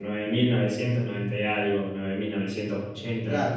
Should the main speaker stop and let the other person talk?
Yes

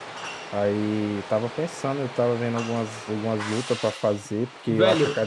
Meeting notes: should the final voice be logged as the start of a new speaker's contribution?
Yes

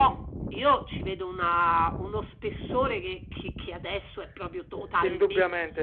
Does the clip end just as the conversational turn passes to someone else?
Yes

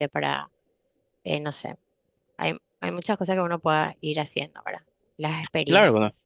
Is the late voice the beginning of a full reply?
Yes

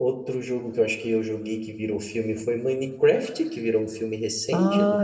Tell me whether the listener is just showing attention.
No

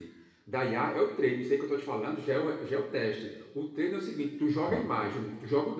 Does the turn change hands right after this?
No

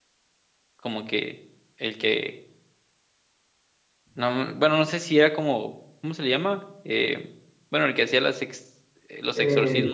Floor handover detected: Yes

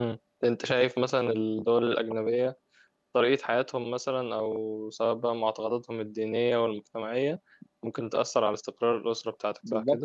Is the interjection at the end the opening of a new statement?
Yes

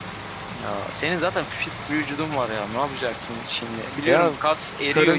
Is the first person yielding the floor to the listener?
Yes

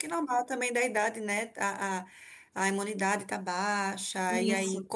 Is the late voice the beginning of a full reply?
No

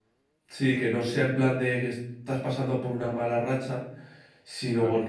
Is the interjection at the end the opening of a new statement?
No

